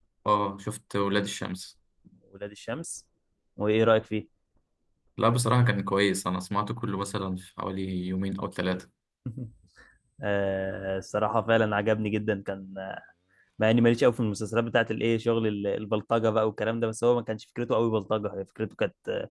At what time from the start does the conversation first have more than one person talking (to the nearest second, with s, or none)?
none